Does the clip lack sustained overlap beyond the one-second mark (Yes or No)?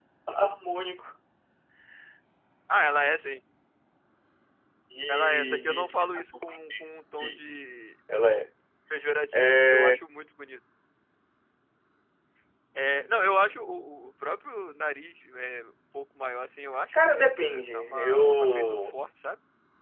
No